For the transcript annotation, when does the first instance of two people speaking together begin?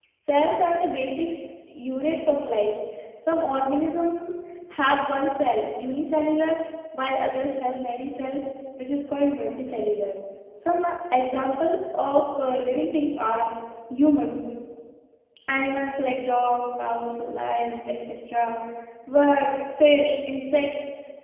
none

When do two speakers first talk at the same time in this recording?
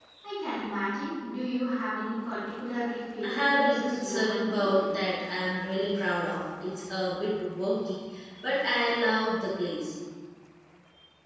3.2 s

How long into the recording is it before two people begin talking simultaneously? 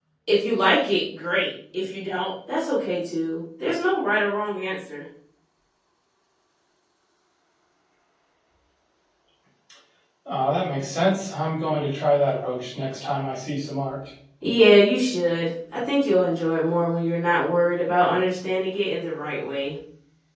none

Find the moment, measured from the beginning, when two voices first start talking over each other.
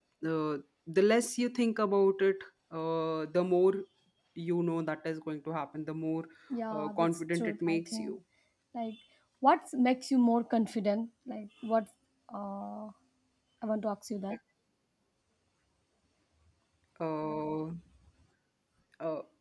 6.7 s

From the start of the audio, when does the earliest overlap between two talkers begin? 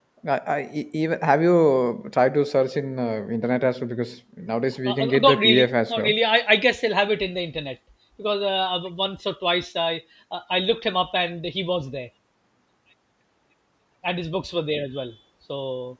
4.9 s

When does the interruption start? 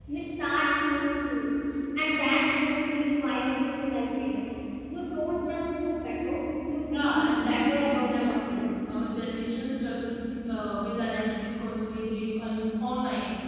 6.9 s

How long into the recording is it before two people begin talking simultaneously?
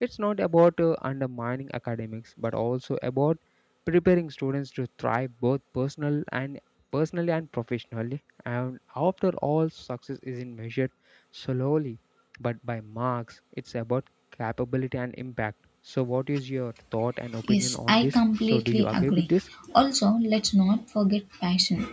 17.4 s

